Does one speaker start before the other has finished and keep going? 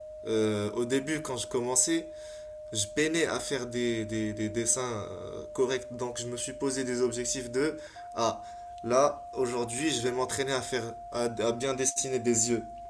No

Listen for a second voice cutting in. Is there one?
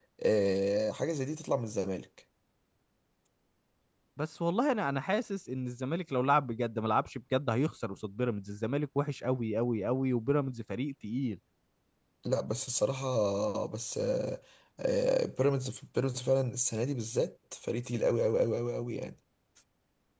No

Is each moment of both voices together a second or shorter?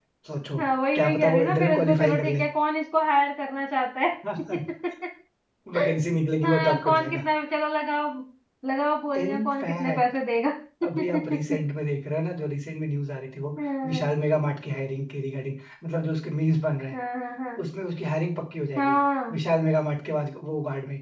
No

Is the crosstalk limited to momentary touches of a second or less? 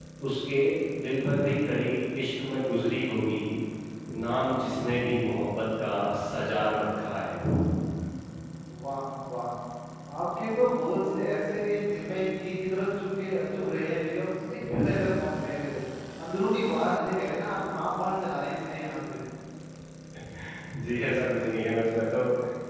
Yes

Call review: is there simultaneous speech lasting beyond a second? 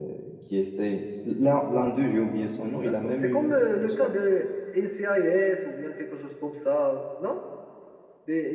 Yes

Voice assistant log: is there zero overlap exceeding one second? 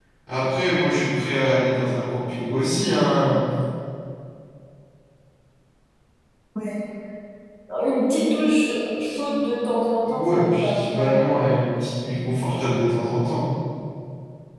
No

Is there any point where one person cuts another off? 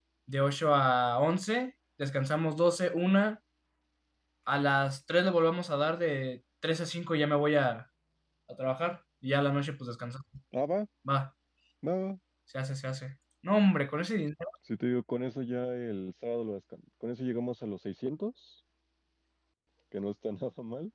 No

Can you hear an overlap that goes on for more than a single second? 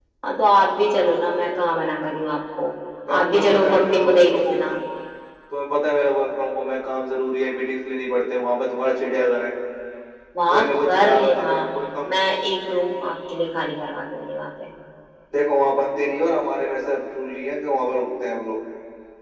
Yes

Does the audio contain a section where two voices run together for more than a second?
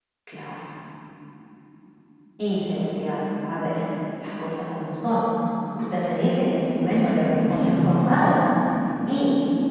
Yes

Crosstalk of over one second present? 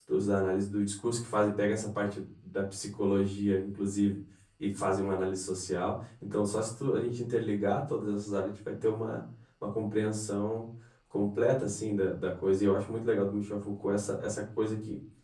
No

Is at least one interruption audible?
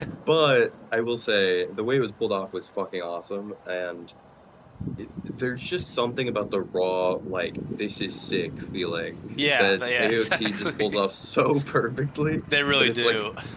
Yes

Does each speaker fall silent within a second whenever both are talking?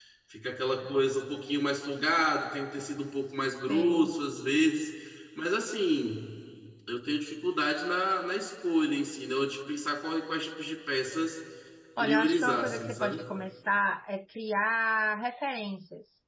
No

